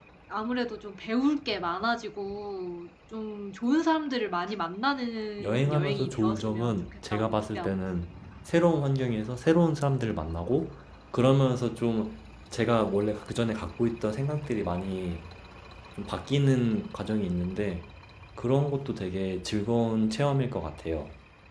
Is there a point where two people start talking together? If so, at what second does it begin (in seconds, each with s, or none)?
5.4 s